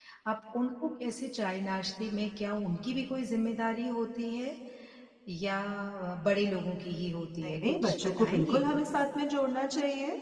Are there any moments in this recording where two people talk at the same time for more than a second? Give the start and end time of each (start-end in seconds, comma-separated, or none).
7.4-8.7